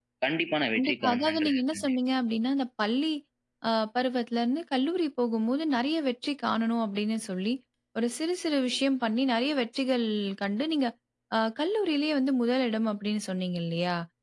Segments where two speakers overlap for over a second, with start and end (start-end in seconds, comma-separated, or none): 0.8-2.0